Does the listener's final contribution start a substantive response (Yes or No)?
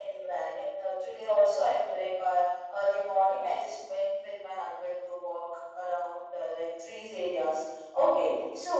No